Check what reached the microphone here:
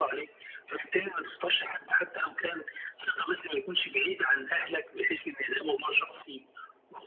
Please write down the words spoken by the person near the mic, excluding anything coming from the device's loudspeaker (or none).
none